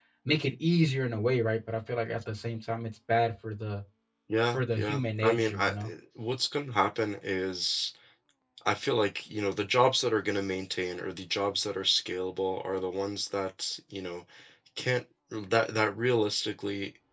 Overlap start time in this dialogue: 4.5 s

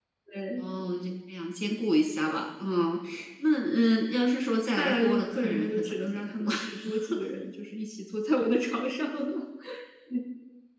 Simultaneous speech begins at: 4.8 s

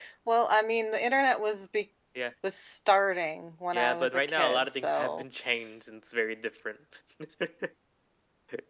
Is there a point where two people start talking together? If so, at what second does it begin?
3.7 s

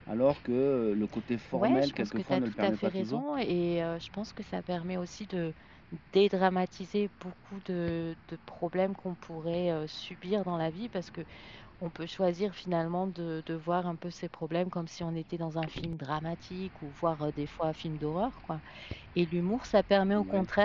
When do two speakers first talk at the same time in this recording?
1.5 s

